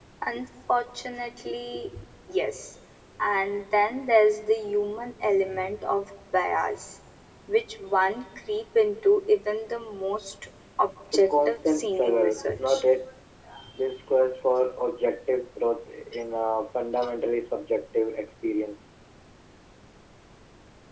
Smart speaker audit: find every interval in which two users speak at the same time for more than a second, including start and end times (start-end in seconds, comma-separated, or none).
11.1-12.8